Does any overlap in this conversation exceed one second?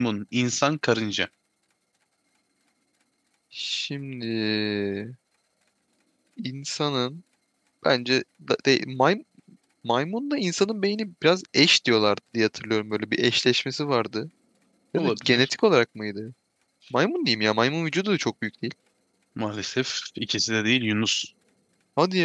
No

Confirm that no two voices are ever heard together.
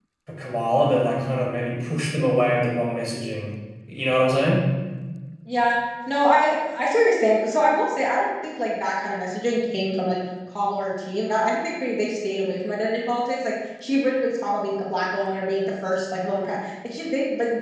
Yes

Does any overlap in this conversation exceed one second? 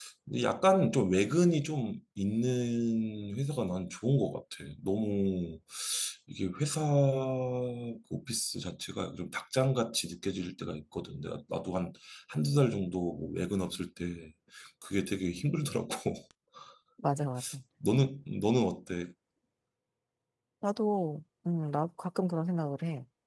No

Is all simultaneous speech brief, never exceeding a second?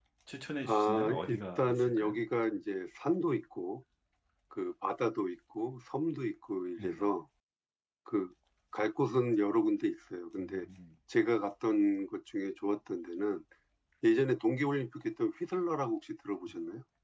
No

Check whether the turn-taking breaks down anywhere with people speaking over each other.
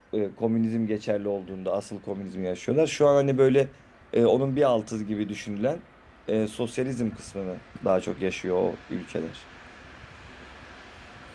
No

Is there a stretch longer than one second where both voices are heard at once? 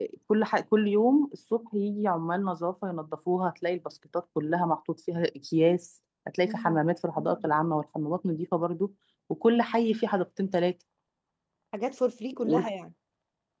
No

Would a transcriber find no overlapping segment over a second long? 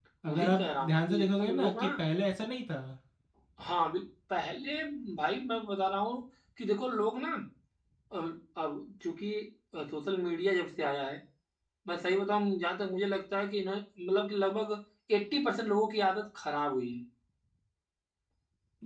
No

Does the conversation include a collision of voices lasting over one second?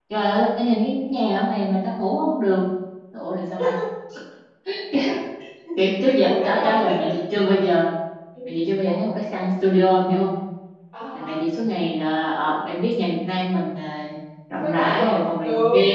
Yes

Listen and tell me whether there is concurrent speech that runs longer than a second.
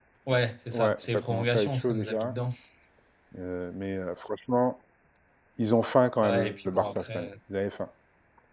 Yes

